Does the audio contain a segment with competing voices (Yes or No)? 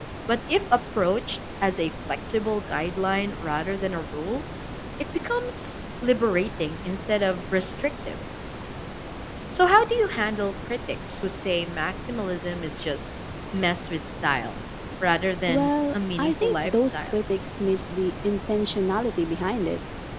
Yes